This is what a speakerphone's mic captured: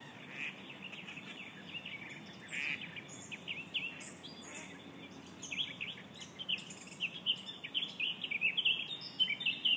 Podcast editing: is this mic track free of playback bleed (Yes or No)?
Yes